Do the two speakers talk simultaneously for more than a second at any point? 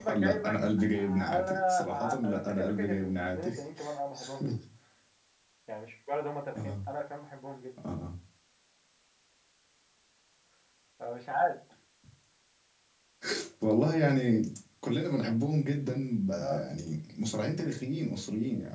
Yes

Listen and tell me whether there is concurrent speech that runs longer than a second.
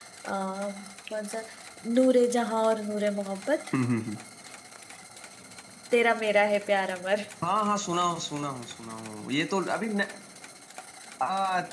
No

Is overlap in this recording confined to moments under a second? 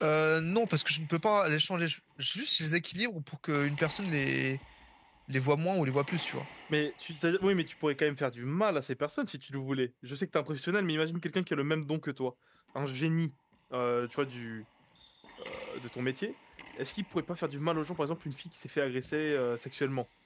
Yes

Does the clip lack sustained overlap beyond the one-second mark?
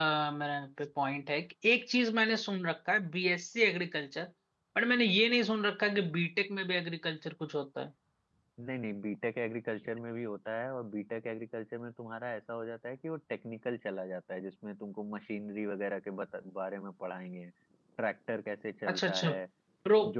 Yes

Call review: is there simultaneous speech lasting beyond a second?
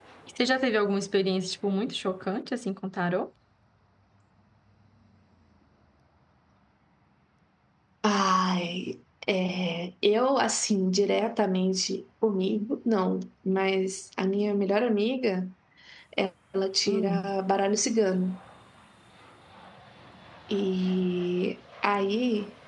No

